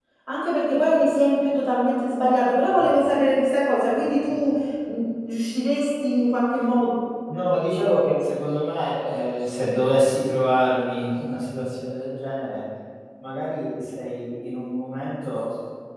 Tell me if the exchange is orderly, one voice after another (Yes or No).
Yes